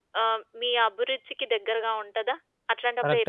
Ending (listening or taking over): taking over